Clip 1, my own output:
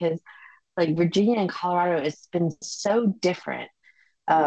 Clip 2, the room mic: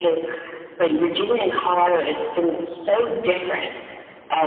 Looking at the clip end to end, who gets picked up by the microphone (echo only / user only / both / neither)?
echo only